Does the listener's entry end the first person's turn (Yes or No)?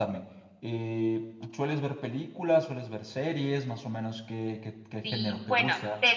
Yes